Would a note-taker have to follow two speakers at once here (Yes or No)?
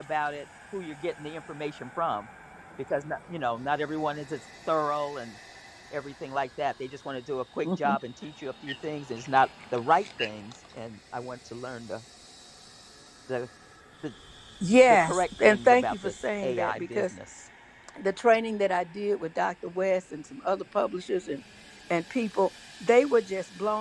Yes